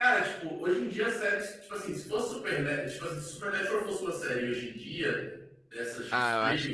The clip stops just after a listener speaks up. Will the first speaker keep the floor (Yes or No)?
No